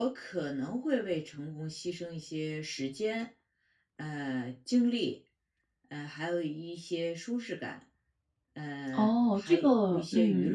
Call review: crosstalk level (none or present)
present